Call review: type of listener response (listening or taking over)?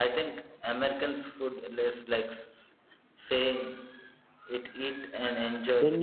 taking over